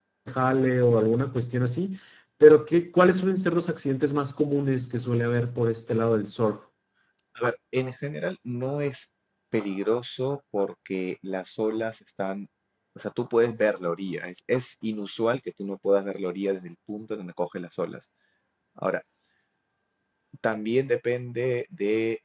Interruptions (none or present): none